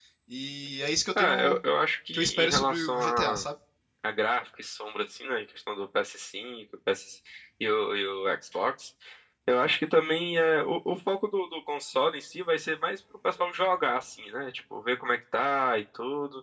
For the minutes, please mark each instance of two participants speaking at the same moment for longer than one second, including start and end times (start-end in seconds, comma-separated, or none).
2.1-3.5